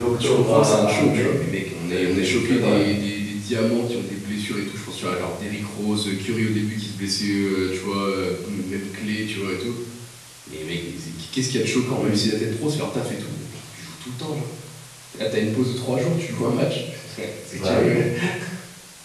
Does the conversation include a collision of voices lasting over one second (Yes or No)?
Yes